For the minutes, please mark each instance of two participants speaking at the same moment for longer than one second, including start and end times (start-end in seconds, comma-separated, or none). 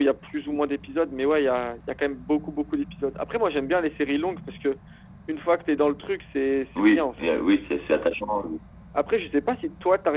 none